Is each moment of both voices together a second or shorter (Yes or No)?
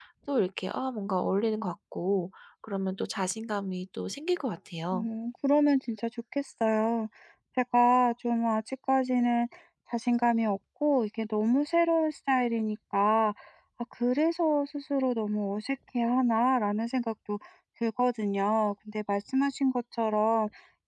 Yes